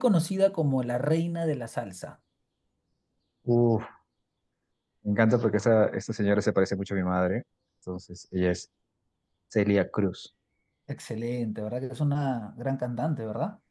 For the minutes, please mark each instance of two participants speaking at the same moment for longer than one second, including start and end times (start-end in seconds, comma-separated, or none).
none